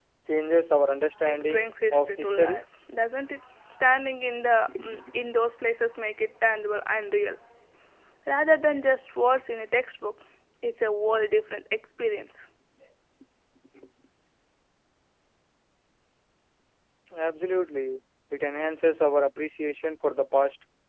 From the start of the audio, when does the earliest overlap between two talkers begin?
1.3 s

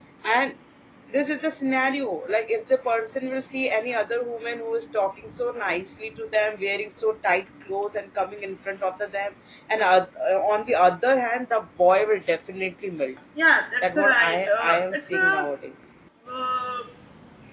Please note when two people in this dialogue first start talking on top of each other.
13.8 s

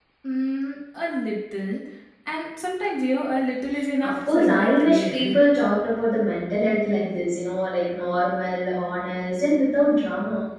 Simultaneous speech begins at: 4.0 s

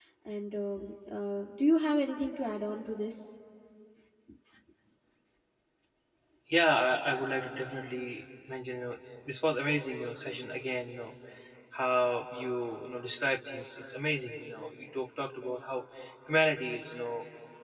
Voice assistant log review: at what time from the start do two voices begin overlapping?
none

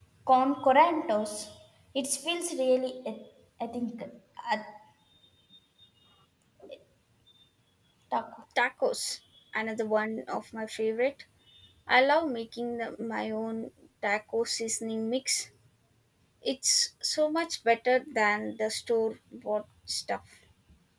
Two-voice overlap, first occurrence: none

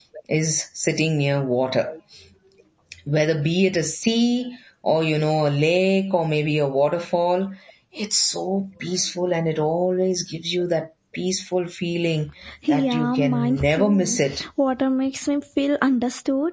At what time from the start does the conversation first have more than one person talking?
12.7 s

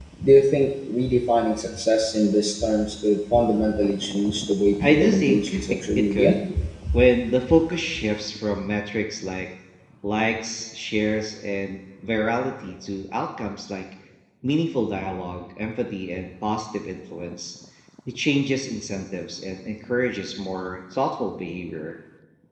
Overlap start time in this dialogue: 4.8 s

